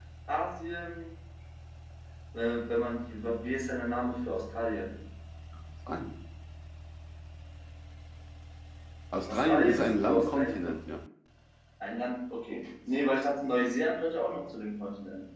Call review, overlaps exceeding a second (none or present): present